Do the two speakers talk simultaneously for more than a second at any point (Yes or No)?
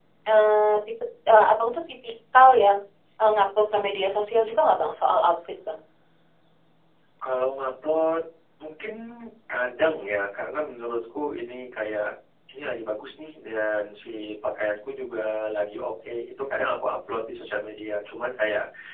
No